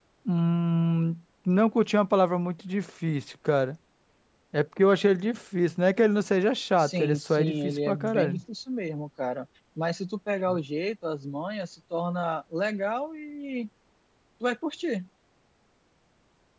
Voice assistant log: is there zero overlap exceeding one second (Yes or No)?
No